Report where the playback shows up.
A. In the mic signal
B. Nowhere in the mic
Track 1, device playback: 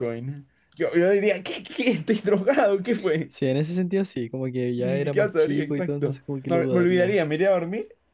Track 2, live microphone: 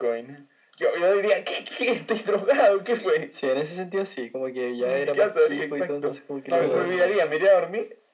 A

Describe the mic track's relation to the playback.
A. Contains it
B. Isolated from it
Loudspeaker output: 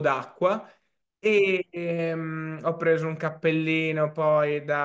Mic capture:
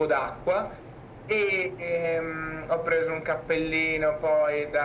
A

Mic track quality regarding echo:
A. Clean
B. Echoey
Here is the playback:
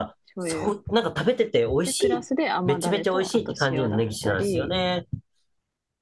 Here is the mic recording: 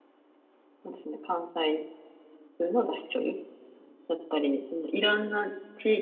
A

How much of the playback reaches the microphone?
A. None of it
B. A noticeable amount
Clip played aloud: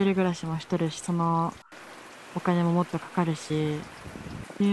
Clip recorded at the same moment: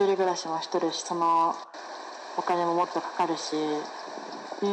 B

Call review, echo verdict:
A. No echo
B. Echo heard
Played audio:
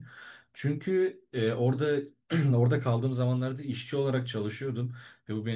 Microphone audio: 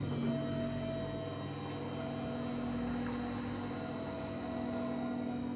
A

